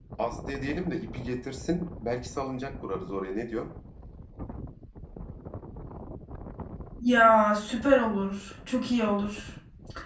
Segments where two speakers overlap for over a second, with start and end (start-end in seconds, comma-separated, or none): none